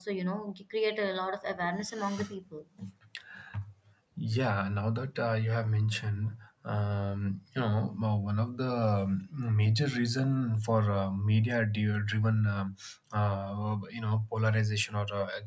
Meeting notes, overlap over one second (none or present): none